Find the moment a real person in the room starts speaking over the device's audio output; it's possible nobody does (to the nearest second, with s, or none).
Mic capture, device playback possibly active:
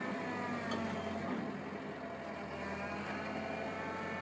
none